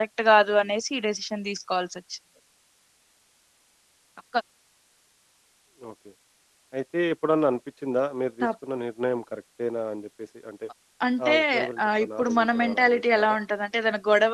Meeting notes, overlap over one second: present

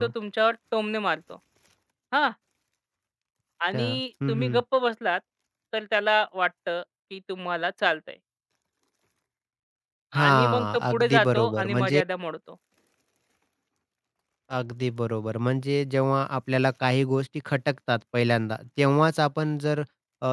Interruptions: present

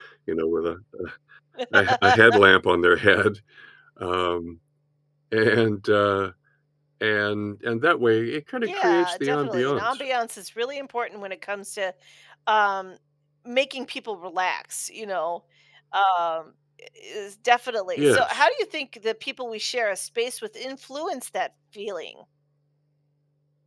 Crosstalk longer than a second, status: present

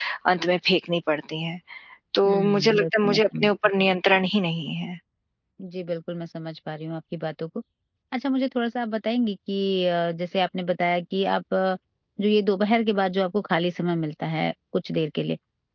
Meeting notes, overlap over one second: present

